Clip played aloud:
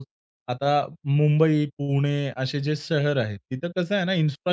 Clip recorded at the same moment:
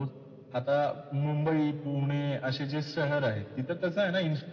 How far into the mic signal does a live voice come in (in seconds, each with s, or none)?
none